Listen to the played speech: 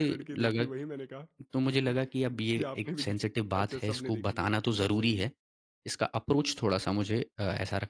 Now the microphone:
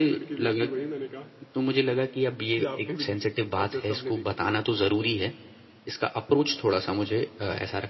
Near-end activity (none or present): none